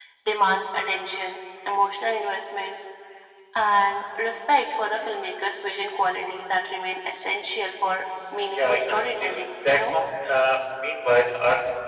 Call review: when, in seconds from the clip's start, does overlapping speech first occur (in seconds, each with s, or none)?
8.5 s